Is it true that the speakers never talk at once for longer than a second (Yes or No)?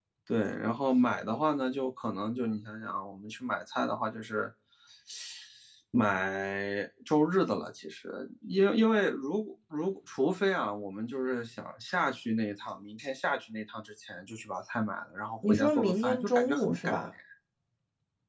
No